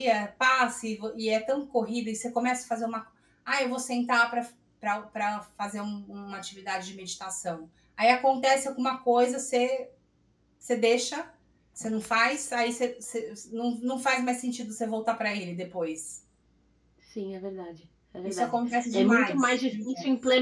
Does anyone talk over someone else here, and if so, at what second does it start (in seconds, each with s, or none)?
18.2 s